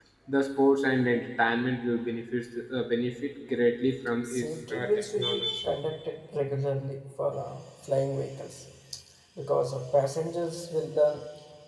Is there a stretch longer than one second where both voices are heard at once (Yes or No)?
Yes